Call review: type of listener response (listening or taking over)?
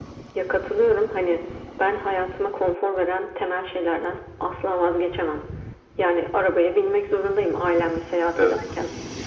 listening